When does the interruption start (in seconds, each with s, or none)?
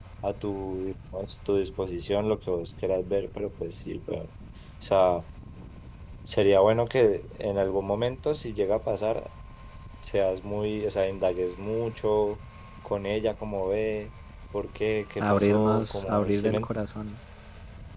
15.2 s